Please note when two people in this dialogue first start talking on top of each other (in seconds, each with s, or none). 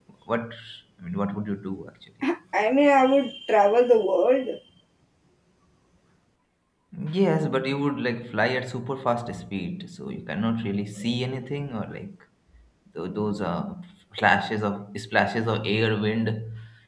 none